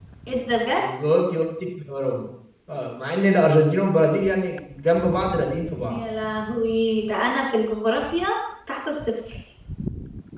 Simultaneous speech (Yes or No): No